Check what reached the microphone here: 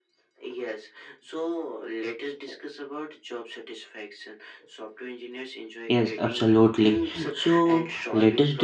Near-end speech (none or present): present